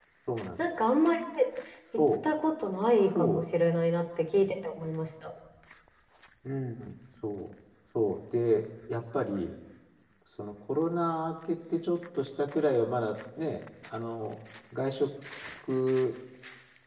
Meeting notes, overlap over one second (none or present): none